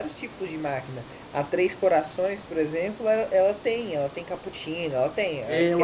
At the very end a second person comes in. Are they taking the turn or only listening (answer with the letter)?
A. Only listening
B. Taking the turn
B